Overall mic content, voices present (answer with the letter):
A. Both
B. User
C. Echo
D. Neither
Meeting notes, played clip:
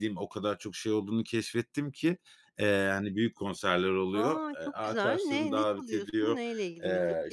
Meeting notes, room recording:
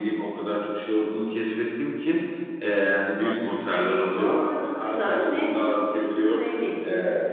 A